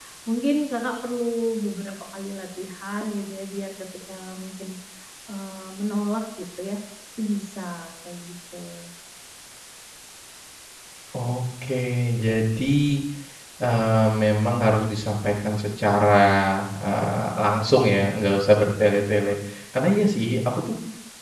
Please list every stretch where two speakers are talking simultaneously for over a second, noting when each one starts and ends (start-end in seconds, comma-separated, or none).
none